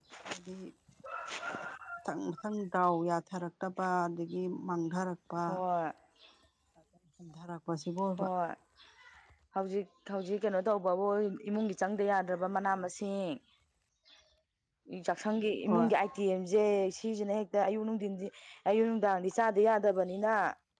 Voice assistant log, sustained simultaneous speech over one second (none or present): none